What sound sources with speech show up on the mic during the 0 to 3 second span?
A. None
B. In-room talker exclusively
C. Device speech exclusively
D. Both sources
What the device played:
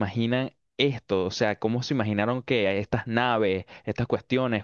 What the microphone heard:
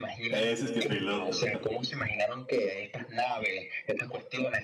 D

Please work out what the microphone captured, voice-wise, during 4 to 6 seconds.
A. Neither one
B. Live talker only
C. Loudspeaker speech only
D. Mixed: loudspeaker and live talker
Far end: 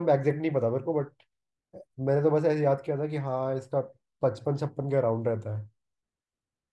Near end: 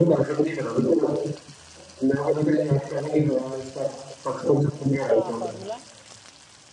D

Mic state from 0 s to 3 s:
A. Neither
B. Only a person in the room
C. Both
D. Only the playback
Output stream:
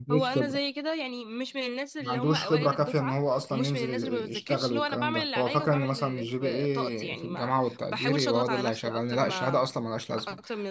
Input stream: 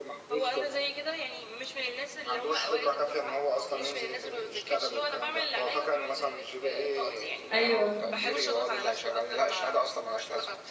D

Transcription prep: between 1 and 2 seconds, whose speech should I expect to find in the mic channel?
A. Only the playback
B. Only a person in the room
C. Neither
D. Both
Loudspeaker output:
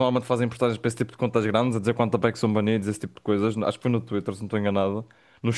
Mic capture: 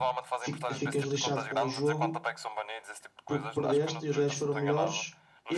D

